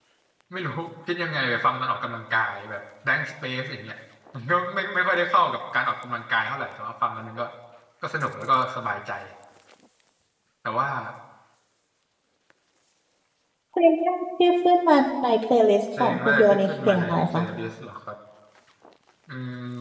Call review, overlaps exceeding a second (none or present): present